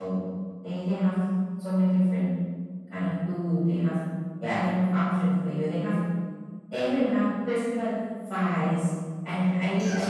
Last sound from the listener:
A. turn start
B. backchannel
B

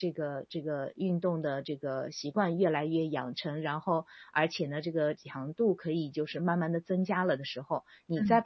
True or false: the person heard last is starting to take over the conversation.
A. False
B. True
B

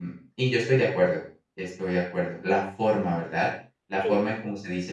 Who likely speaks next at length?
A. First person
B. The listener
A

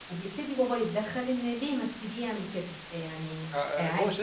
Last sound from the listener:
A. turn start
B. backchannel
A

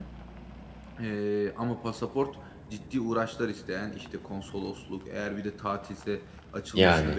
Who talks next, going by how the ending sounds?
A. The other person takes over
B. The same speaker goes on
B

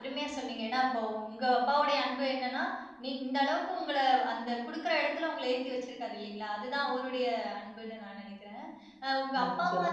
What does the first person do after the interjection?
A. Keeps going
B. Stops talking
A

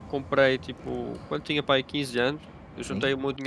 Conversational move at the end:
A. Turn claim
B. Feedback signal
B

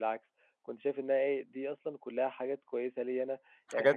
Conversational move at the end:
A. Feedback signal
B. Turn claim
A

